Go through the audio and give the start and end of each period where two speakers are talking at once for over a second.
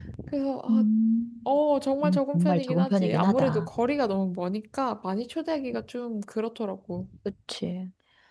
2.0-3.7

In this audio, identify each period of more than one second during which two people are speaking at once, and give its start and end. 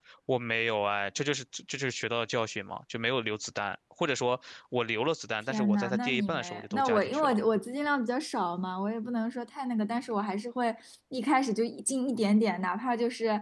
5.5-7.3

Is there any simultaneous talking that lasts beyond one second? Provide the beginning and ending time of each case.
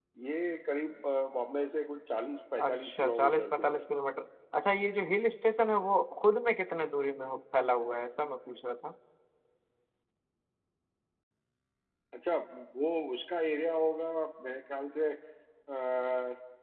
2.6-3.9

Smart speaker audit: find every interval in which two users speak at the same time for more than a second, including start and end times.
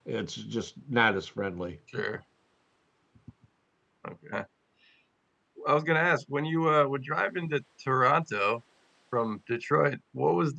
none

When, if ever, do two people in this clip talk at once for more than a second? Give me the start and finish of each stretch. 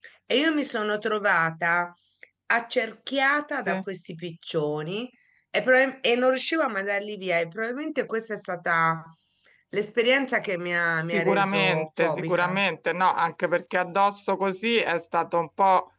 11.1-12.6

